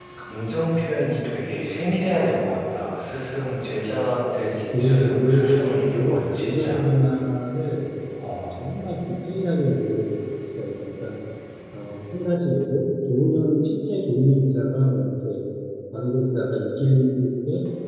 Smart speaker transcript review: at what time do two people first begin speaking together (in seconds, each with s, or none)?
4.4 s